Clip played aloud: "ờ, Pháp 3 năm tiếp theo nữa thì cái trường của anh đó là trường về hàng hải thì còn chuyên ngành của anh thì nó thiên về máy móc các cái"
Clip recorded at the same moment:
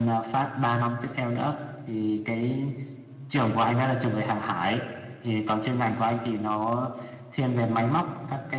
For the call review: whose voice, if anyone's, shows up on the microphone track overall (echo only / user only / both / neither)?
echo only